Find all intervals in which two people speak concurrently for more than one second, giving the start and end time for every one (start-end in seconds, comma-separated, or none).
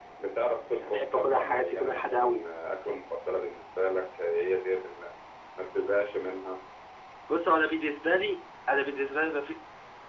0.7-2.4